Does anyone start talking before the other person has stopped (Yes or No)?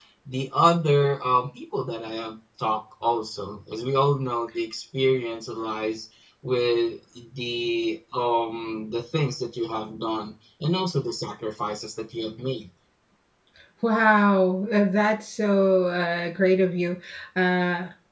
No